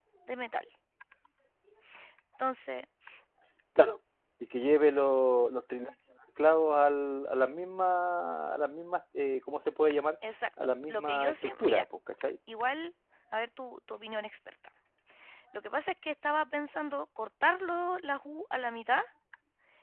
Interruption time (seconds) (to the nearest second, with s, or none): 11 s